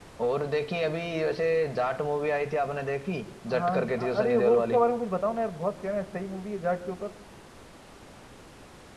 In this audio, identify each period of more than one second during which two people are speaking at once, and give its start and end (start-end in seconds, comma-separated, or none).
3.6-4.8